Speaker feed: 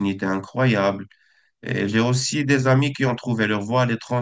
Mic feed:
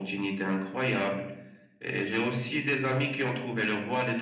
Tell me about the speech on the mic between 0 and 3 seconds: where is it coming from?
echo only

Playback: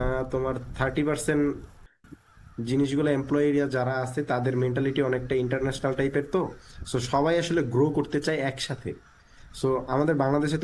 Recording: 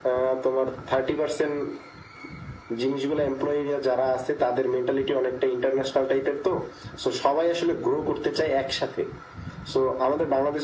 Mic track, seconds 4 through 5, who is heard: echo only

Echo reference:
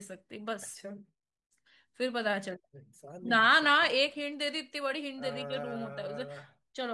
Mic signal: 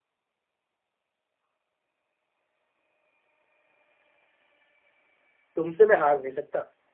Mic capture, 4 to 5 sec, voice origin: neither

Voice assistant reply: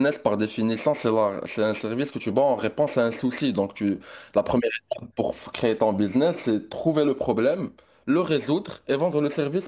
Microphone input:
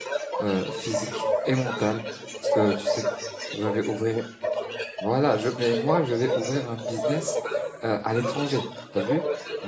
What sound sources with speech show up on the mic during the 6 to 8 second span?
both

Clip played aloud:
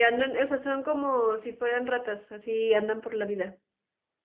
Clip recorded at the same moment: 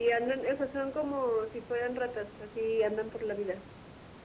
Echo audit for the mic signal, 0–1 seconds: echo only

